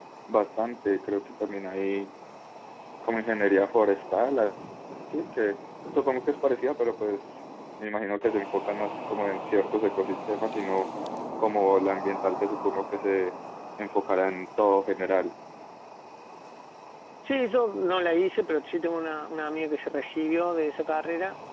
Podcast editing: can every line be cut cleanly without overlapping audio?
Yes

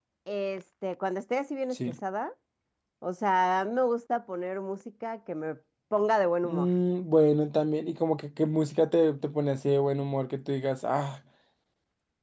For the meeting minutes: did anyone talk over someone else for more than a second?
No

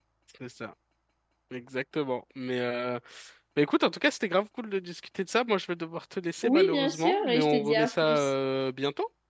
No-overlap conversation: No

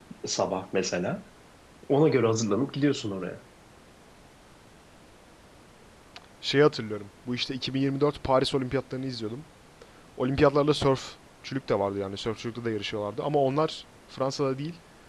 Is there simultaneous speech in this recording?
No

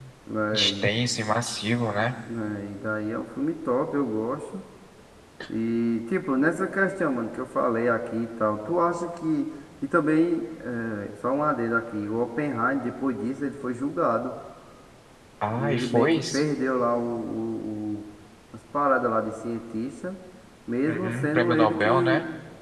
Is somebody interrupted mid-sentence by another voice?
Yes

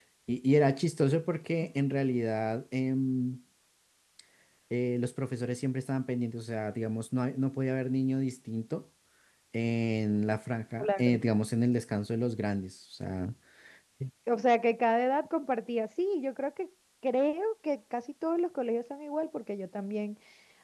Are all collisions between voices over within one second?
Yes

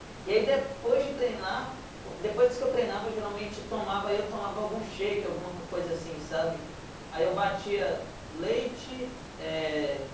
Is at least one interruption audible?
No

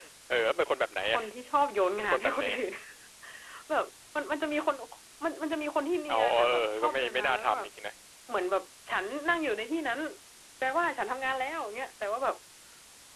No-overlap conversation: No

